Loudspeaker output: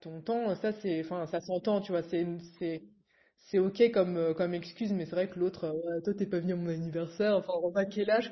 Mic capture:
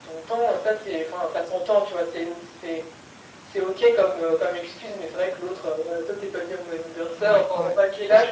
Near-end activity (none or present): present